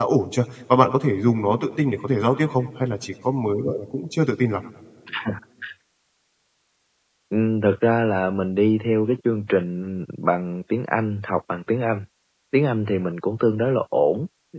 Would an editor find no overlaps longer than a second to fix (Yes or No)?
Yes